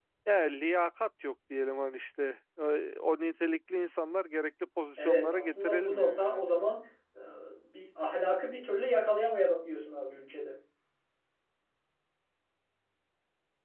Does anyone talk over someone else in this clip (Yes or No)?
Yes